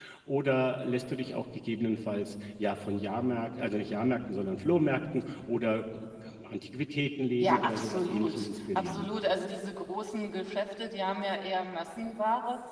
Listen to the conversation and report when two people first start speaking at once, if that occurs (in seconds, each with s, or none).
7.4 s